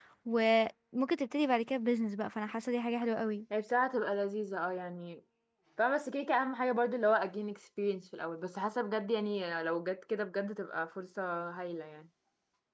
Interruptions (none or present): none